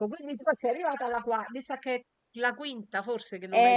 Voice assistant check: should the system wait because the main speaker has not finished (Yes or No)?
No